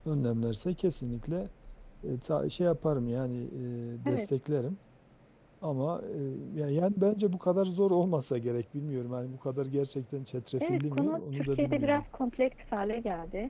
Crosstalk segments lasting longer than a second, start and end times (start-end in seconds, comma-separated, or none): 10.6-12.0